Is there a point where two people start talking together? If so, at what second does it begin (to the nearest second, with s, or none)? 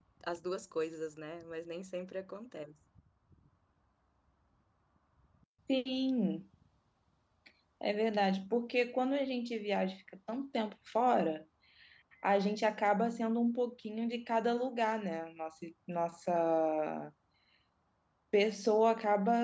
none